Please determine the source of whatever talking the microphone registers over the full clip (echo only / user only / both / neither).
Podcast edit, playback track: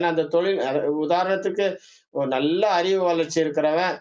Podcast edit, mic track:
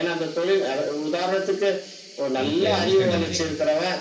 both